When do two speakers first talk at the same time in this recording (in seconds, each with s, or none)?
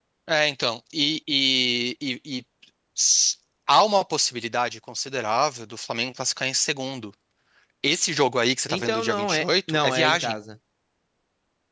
8.7 s